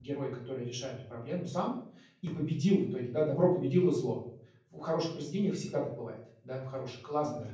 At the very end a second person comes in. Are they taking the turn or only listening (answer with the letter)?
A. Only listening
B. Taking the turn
A